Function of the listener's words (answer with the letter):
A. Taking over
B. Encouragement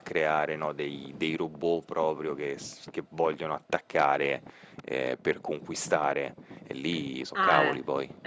A